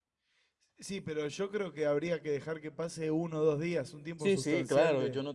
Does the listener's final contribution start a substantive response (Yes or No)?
Yes